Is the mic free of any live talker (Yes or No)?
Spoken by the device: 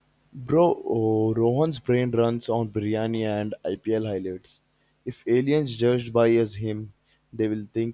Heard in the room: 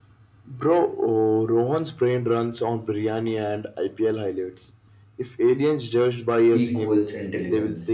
No